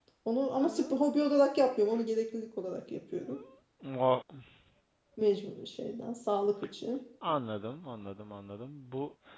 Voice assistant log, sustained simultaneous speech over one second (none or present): none